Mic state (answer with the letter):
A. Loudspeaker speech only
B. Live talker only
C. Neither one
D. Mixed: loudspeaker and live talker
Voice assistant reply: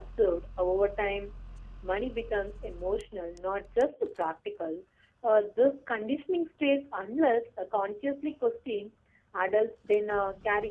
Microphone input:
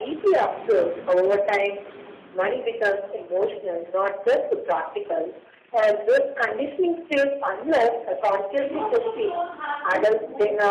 D